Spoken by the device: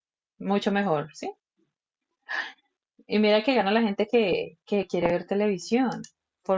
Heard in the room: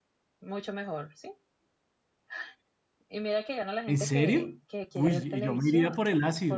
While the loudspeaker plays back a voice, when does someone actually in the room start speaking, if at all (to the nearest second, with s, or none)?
4 s